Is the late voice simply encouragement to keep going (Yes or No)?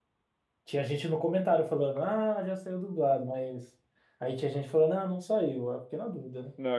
No